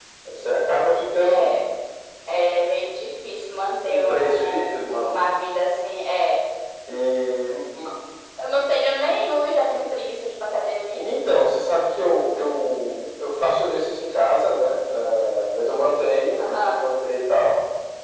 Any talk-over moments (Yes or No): Yes